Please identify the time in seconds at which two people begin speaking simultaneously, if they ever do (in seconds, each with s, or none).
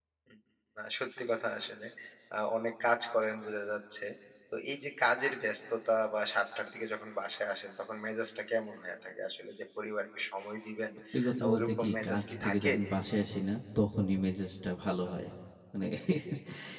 11.4 s